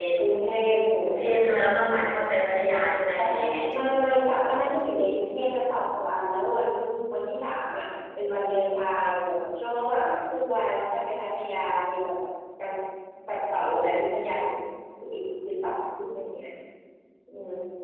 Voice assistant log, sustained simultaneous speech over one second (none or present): none